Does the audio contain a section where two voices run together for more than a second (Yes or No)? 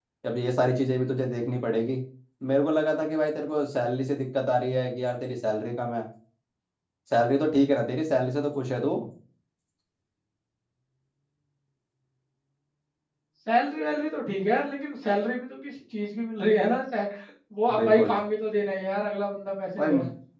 No